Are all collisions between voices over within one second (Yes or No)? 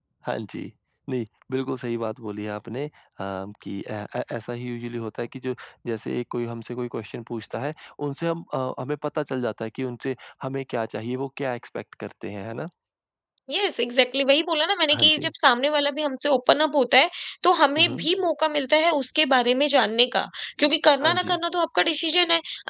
Yes